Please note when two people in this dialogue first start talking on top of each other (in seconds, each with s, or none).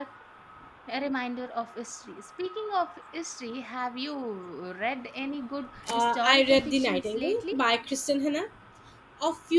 5.9 s